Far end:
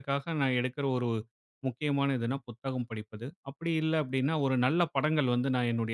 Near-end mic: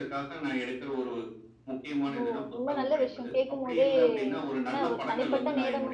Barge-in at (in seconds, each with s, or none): 2.1 s